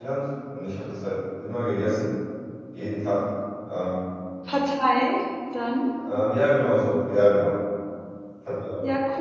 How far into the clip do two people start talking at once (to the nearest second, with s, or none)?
none